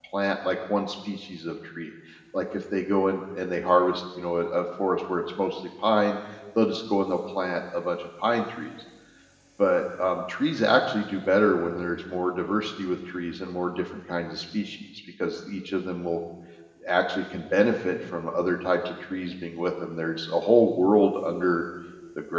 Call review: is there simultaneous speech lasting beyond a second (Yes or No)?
No